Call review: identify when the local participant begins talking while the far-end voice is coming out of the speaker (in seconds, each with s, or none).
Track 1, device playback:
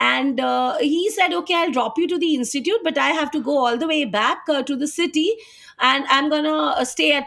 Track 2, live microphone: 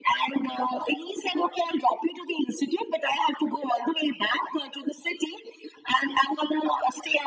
none